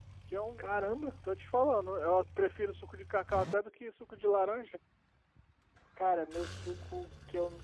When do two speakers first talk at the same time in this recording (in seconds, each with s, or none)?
none